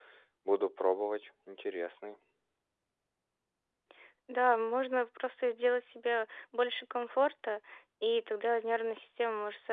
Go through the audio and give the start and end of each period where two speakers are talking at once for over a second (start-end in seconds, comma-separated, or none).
none